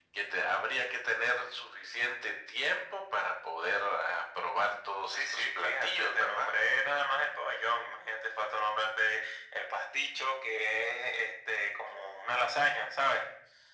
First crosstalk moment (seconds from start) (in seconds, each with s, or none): 5.1 s